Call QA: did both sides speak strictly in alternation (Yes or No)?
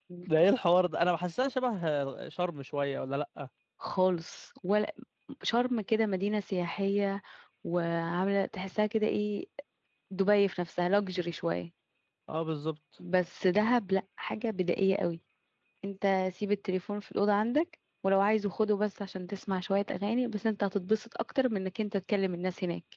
Yes